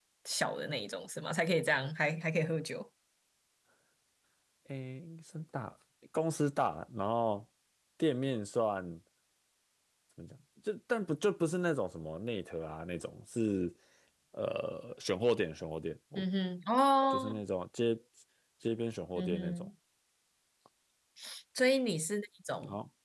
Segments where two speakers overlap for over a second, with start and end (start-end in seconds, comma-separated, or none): none